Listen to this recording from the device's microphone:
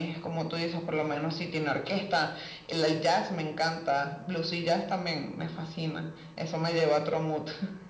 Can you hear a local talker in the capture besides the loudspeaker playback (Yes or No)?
No